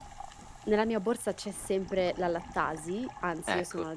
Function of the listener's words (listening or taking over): listening